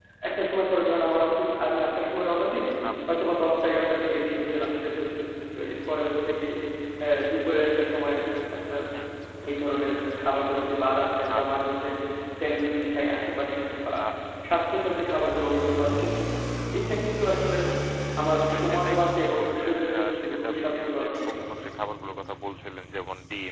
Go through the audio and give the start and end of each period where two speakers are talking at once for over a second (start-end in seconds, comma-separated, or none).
18.5-21.2